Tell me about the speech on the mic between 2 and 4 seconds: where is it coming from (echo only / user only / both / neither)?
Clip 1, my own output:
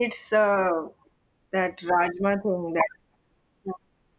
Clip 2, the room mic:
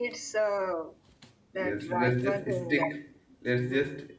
both